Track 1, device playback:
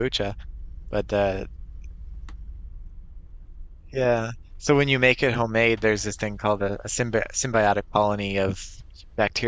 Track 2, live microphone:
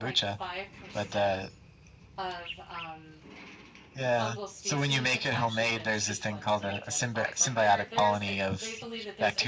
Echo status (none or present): present